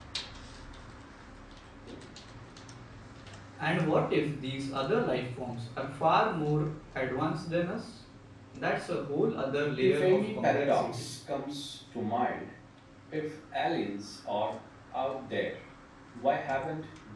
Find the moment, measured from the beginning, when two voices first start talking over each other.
9.7 s

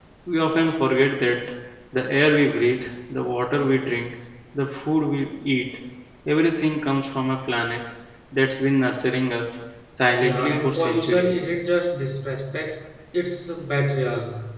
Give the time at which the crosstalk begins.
10.2 s

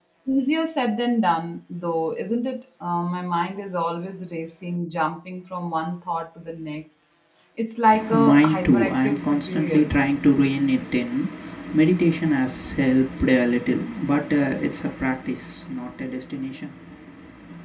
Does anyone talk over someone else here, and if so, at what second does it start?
8.1 s

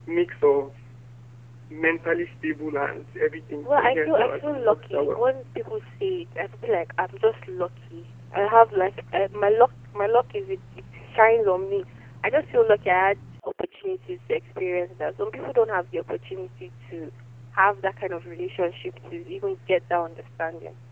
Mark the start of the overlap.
3.6 s

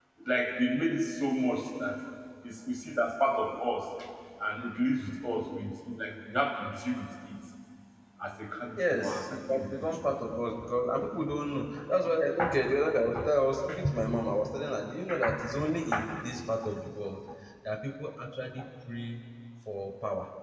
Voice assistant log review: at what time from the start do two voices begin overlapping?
8.8 s

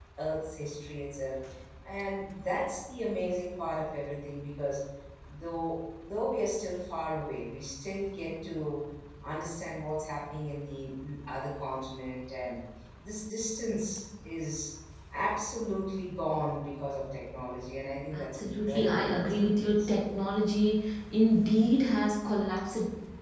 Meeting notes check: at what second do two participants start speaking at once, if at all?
18.1 s

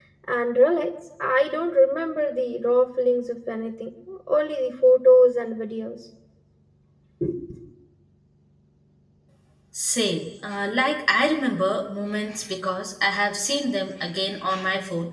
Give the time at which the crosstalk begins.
none

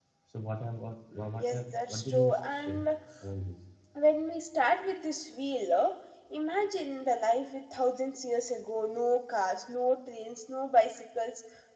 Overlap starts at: 1.3 s

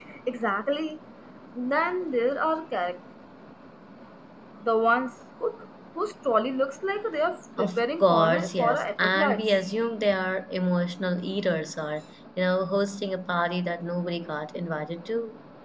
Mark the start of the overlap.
7.6 s

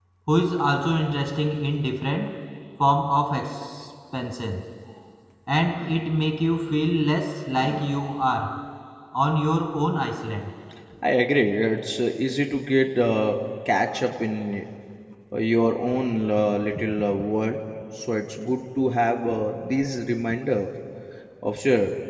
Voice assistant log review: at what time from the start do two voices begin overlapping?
none

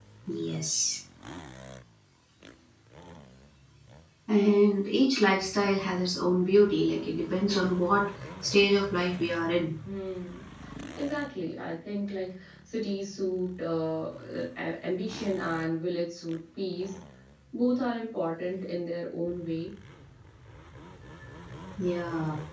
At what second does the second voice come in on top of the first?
none

